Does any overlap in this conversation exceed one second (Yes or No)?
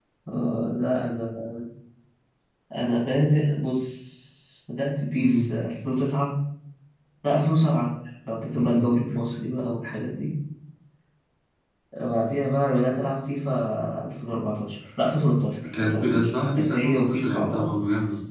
Yes